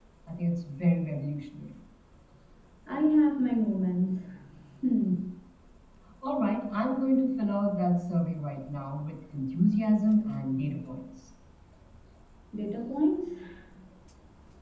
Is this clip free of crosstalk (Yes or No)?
Yes